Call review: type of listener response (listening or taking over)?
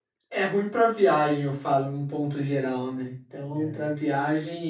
listening